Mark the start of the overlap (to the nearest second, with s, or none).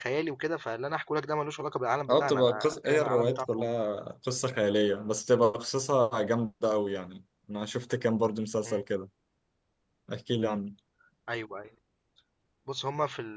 2 s